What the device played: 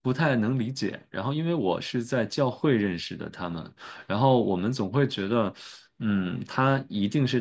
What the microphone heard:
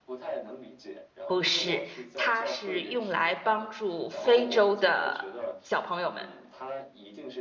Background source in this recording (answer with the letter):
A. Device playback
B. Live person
A